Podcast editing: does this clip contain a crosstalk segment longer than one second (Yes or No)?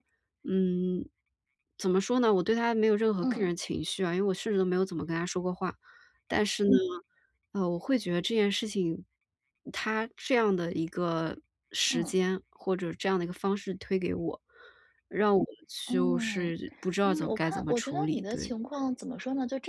Yes